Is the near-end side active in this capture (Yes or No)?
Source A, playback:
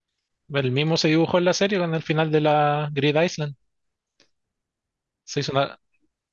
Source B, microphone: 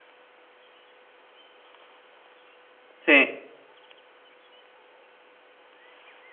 Yes